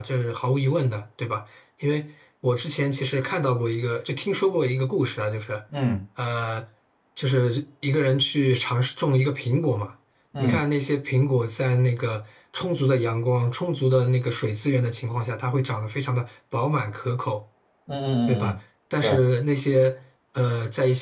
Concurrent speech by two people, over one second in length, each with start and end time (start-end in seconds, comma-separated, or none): none